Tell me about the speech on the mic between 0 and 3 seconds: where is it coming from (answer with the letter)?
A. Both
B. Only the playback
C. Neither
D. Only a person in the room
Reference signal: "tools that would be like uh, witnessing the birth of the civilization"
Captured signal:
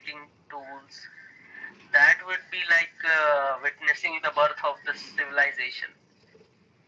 B